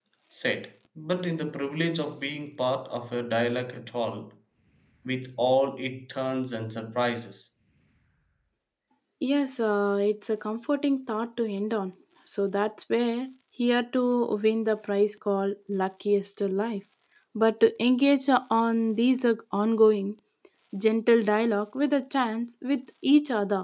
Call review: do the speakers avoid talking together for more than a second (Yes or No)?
Yes